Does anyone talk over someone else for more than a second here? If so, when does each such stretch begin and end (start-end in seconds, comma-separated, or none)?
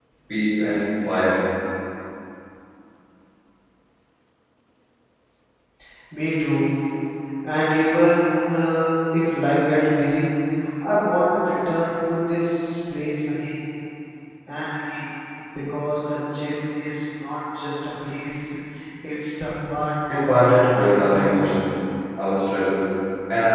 20.1-21.4